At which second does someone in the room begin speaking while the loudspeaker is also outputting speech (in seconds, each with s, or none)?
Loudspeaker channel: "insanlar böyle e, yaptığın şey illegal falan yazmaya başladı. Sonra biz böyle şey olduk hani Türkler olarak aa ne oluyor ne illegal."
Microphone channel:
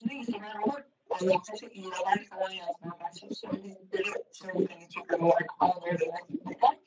none